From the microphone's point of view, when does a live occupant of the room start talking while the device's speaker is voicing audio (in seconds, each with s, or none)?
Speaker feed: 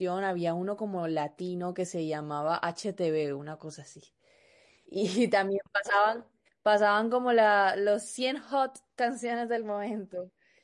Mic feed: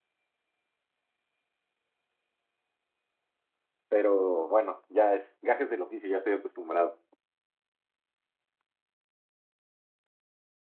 3.9 s